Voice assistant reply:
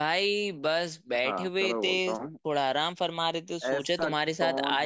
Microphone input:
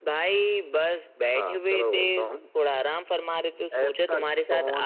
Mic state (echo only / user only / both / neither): echo only